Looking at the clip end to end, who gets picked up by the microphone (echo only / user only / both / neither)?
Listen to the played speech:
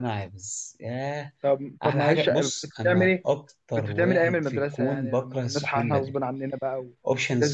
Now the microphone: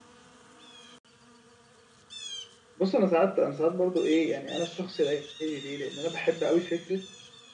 user only